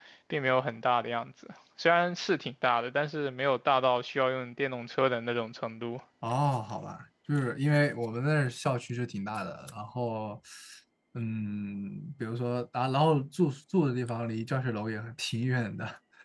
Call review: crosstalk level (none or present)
none